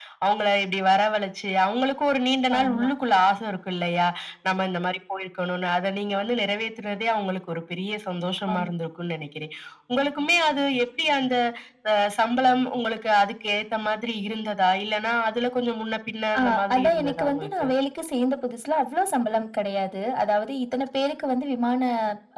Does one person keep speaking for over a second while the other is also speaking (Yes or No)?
Yes